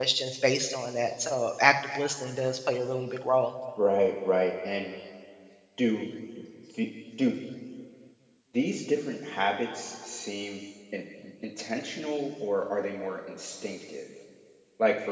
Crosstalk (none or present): none